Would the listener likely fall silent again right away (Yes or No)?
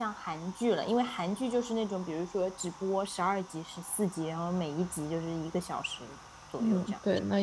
No